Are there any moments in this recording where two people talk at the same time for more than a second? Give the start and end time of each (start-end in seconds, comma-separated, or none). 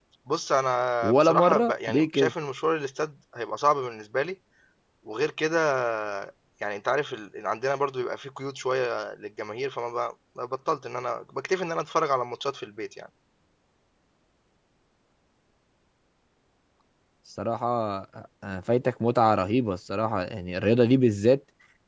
1.0-2.3